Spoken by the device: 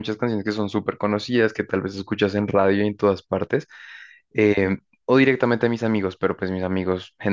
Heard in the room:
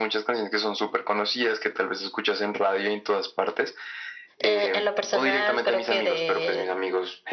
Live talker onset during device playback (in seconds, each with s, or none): 4.4 s